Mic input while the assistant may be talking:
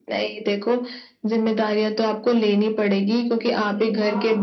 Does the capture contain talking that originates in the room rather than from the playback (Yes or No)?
Yes